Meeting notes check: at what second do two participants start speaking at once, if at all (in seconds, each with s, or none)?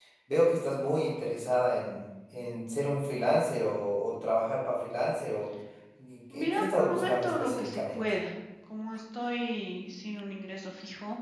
6.3 s